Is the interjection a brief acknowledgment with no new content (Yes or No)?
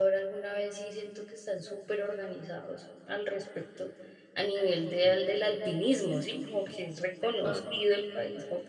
Yes